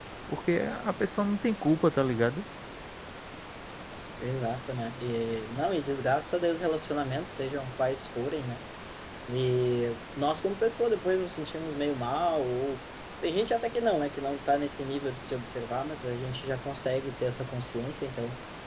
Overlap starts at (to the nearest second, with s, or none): none